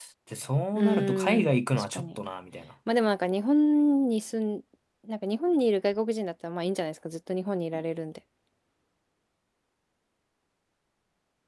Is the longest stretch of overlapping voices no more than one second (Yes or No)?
No